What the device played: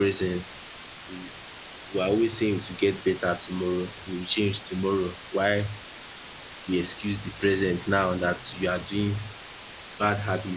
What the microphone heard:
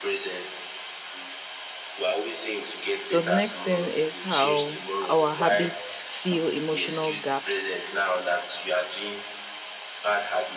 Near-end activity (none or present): present